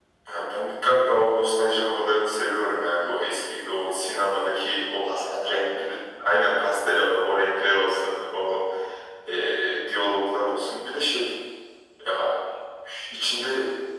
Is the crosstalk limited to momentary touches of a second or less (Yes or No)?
Yes